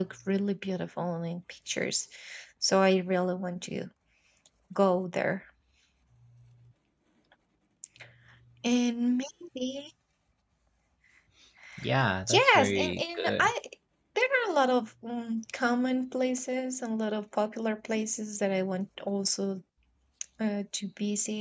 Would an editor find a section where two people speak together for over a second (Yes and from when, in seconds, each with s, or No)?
Yes, from 12.3 s